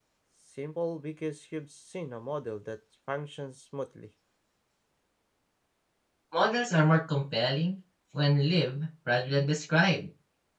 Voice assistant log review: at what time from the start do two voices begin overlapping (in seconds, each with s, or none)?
none